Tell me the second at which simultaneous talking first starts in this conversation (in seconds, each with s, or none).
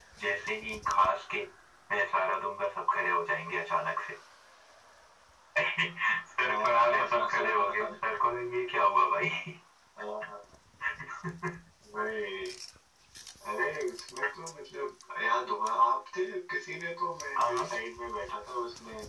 6.4 s